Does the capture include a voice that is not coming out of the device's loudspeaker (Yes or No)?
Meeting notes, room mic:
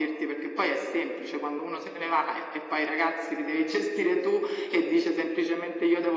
No